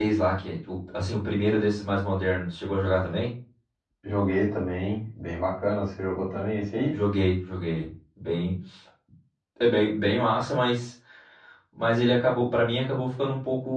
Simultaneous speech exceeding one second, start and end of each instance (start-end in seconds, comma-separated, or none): none